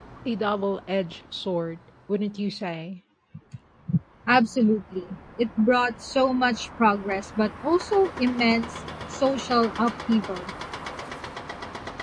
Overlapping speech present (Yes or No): No